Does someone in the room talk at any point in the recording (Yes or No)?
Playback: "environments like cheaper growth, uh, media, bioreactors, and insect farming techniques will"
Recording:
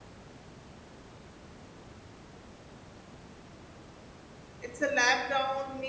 Yes